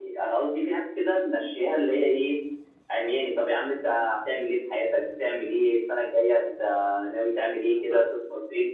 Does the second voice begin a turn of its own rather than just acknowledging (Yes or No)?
No